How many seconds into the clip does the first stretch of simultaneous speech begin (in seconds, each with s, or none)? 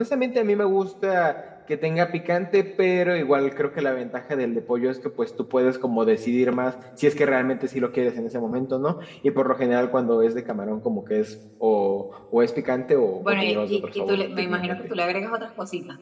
13.2 s